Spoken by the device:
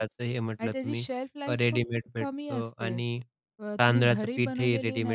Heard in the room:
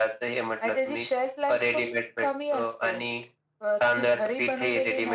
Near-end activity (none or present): none